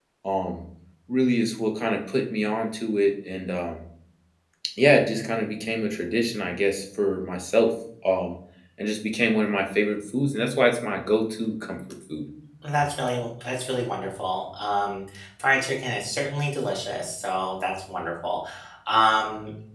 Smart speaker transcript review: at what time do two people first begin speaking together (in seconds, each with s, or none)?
none